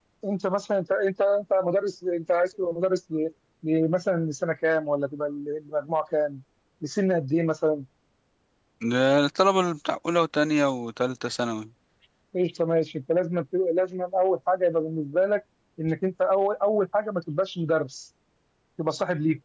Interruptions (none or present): none